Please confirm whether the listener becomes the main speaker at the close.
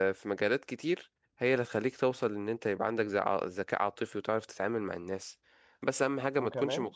No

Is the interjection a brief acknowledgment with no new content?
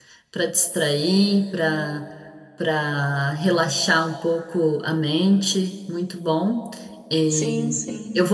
Yes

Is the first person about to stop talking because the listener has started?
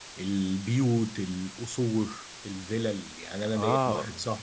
No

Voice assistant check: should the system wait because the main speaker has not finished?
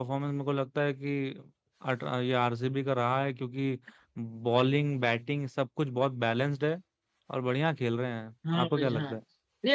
No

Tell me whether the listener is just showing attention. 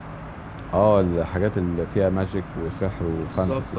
No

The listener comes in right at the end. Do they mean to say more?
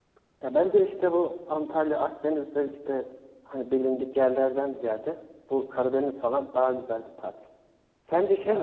No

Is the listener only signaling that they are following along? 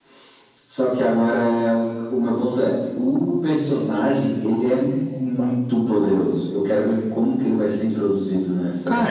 No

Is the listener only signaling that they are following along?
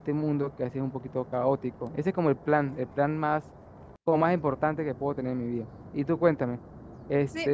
No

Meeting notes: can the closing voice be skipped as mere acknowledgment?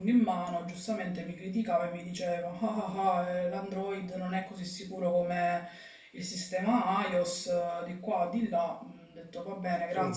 No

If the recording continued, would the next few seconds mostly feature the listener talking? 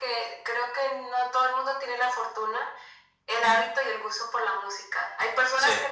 No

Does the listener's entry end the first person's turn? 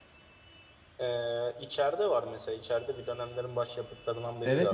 Yes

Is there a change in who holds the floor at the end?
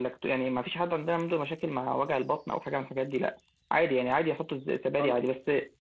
No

